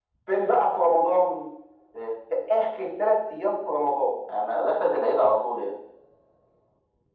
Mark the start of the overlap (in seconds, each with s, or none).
none